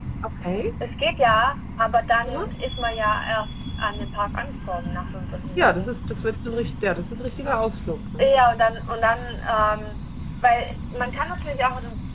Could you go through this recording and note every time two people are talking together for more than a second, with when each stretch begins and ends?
none

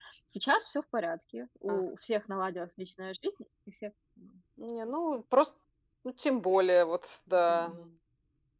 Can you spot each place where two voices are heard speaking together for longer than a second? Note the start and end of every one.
none

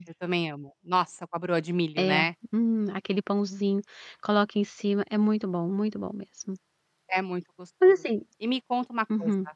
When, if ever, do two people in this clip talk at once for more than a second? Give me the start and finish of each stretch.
none

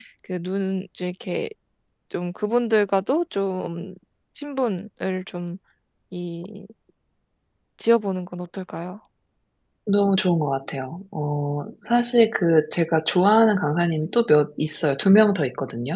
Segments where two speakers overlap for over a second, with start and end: none

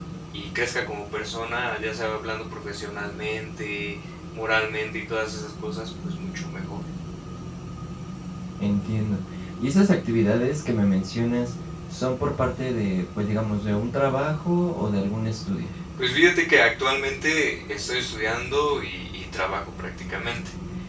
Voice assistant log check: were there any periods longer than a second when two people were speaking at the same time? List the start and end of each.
none

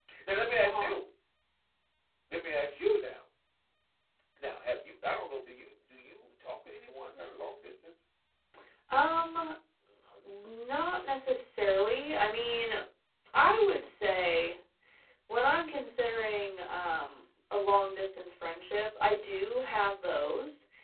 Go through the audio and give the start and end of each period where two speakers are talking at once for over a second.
none

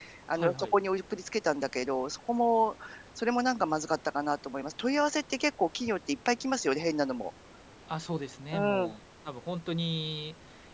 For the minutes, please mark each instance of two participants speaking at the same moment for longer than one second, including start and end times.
none

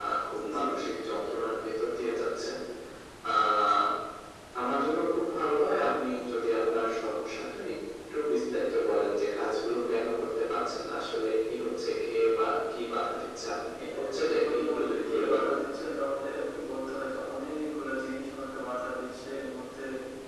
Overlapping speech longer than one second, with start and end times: 13.8-15.6

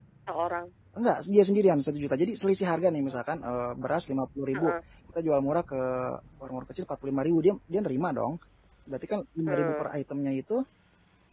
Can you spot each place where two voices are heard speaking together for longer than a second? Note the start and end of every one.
none

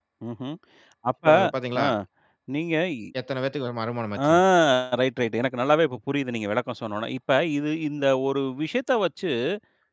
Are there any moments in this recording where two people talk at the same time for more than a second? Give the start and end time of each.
none

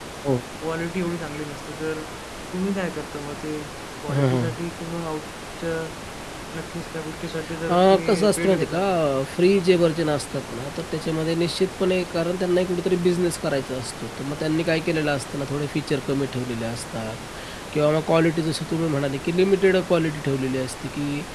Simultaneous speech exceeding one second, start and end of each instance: 7.7-8.9

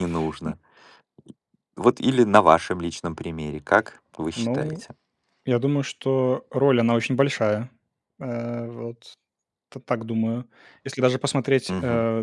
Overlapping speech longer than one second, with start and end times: none

